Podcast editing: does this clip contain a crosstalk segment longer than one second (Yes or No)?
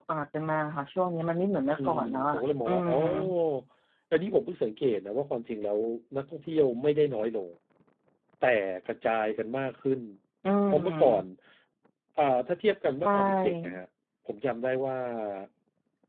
Yes